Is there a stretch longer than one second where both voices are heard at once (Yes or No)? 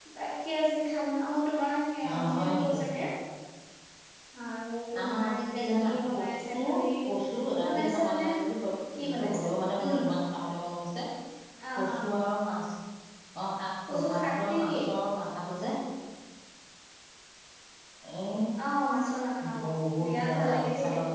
Yes